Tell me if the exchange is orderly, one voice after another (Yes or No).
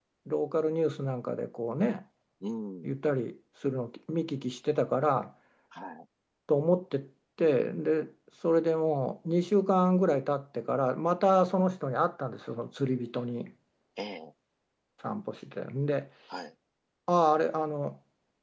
Yes